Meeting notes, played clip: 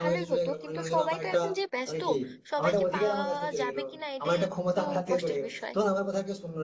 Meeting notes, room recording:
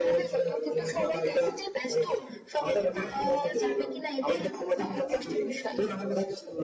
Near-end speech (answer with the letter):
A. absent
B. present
A